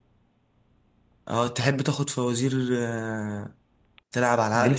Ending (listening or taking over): taking over